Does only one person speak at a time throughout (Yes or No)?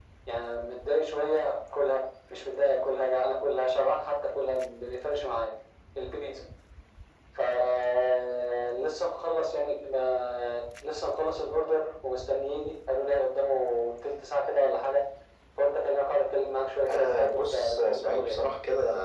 No